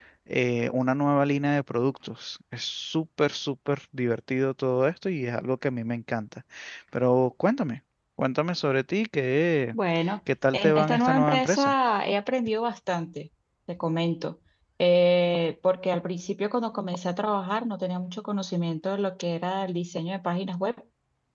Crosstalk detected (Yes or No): Yes